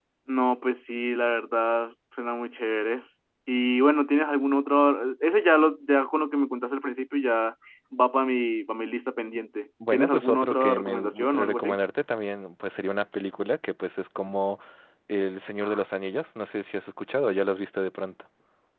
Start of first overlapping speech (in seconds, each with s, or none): 9.8 s